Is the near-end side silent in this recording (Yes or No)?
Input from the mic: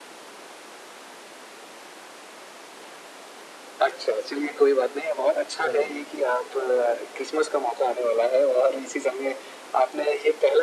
No